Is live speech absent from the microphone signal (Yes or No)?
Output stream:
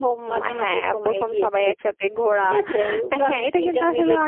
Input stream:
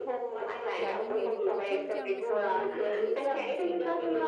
No